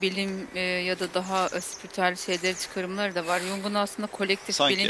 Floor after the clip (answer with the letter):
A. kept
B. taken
A